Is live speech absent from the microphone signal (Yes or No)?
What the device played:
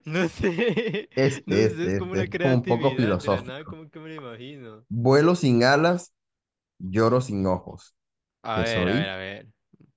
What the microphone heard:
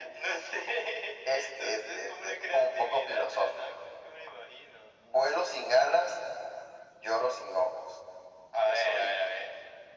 Yes